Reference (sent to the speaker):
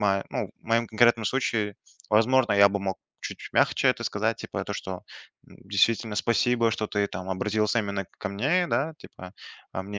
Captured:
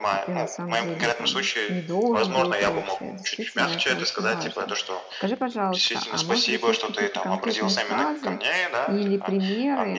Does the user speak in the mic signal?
Yes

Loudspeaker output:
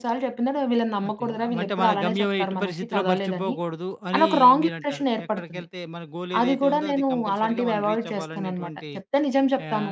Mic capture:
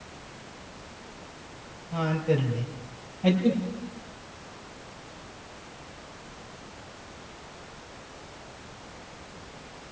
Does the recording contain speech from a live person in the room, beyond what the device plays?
Yes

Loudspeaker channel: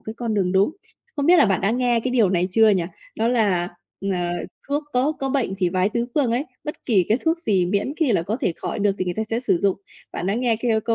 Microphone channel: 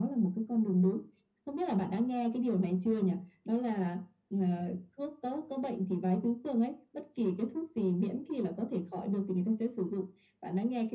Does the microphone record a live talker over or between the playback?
No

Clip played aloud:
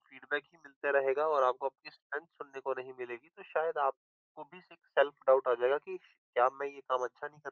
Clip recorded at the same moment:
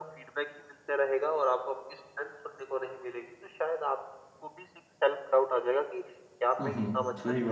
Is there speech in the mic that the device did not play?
Yes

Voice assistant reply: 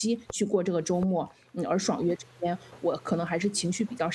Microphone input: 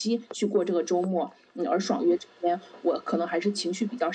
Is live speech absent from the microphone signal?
Yes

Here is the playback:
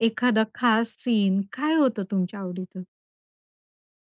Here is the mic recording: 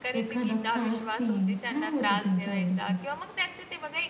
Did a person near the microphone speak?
Yes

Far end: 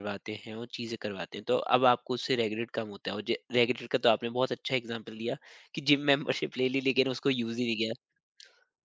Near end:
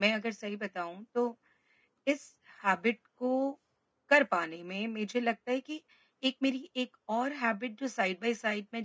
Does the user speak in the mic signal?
Yes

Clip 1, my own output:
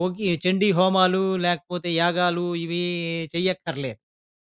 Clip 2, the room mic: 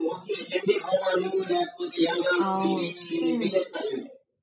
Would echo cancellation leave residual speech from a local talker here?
Yes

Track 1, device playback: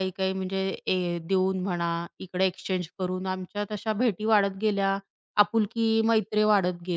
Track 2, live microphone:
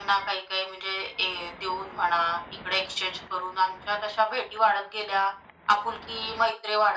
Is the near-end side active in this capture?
No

